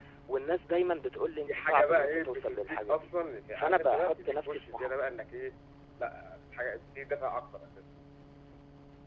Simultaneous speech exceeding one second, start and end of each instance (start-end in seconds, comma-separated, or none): 1.5-3.0, 3.5-4.9